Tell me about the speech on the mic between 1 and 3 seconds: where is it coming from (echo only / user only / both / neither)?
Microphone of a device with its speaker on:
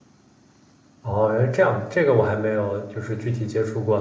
user only